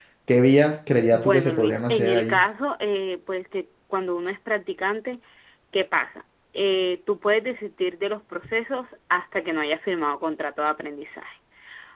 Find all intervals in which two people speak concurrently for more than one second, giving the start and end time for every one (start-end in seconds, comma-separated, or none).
1.1-2.4